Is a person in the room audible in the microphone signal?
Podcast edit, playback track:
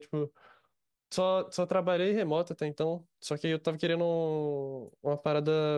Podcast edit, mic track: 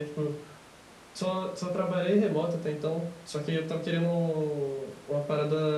No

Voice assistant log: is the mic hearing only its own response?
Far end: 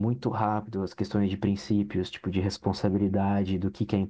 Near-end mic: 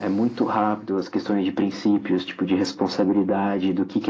Yes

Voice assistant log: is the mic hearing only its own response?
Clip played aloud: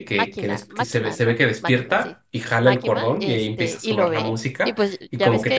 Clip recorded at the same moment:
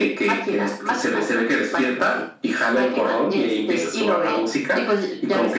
Yes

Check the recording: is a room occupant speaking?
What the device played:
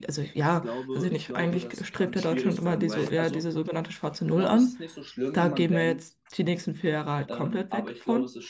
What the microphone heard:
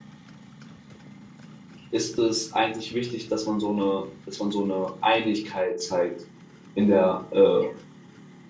Yes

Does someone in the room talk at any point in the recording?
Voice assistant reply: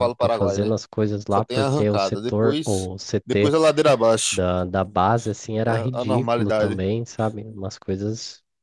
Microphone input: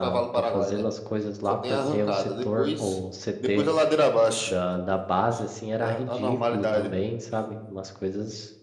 No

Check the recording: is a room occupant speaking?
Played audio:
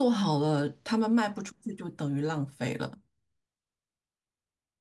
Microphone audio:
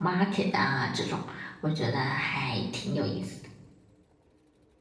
Yes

